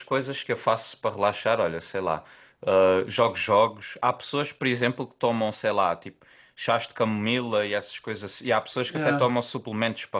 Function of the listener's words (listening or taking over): listening